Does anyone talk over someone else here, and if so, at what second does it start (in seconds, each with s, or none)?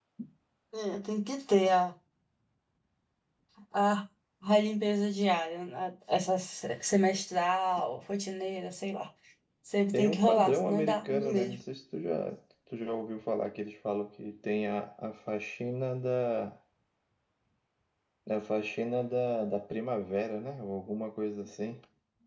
9.9 s